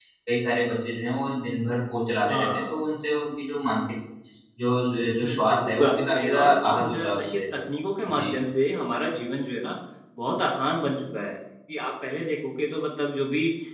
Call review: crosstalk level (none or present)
present